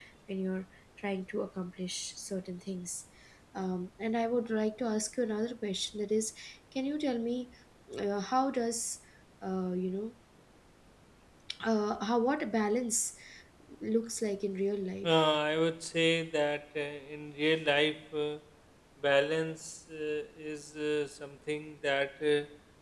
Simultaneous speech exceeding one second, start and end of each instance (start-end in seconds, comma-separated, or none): none